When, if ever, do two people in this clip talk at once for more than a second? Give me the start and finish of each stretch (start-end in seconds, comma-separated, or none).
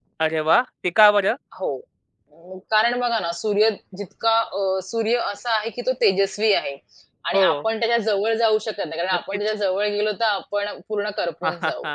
none